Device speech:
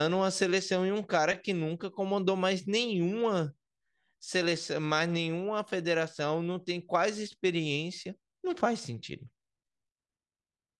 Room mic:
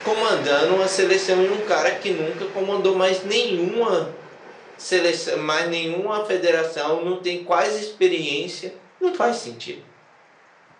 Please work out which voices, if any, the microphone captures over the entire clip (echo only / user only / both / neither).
echo only